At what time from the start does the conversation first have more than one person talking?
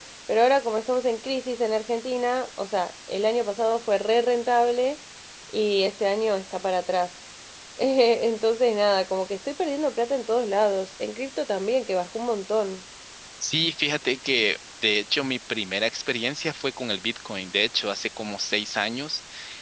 none

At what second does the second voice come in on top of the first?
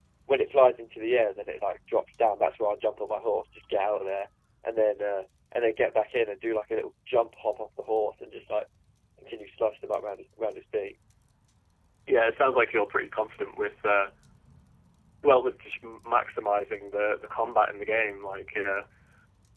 none

